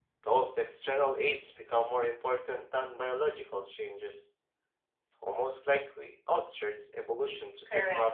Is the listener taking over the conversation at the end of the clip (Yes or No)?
Yes